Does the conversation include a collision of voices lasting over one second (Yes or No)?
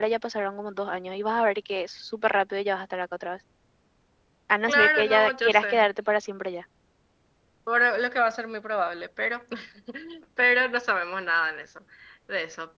Yes